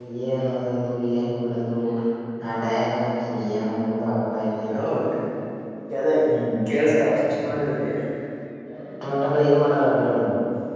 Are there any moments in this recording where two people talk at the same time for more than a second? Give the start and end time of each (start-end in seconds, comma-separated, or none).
none